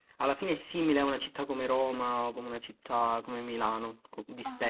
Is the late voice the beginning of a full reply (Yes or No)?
Yes